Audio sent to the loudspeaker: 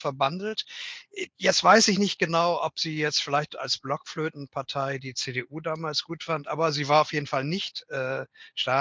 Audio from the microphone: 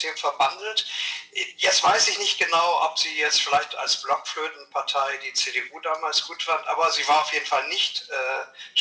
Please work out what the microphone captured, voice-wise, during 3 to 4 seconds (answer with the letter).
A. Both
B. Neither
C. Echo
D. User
C